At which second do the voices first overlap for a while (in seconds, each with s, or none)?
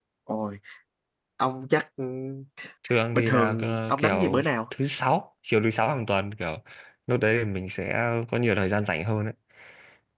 3.1 s